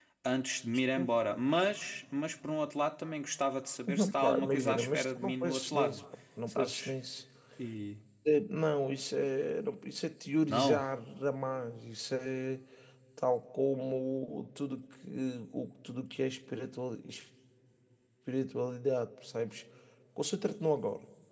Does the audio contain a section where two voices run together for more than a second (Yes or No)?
Yes